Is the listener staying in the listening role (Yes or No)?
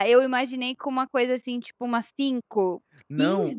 No